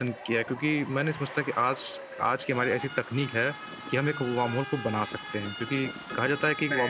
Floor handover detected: No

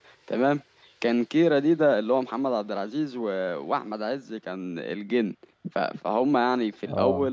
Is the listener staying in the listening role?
Yes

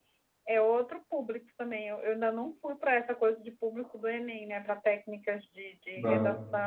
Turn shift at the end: No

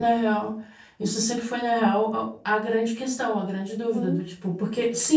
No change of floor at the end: Yes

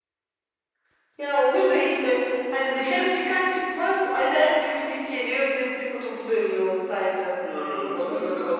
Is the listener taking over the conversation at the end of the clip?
Yes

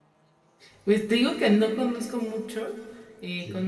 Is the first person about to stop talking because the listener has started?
No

